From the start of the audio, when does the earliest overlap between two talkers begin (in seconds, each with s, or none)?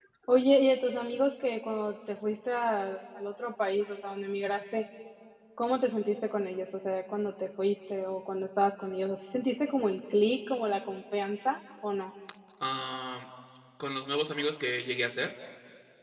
none